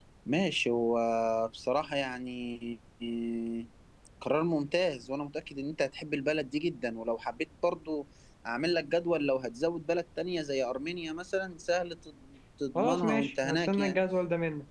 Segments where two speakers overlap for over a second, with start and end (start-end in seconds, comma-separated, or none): 12.8-14.0